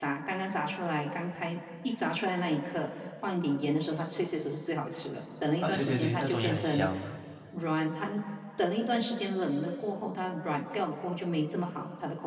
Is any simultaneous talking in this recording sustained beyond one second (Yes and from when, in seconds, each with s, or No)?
Yes, from 5.6 s